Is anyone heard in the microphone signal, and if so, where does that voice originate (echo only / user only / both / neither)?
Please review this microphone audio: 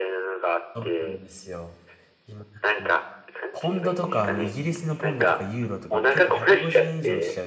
both